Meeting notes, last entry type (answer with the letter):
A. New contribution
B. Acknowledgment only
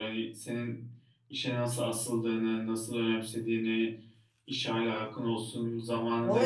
A